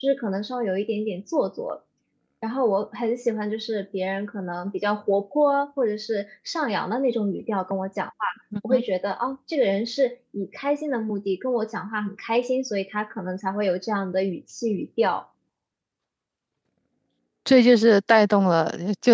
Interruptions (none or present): none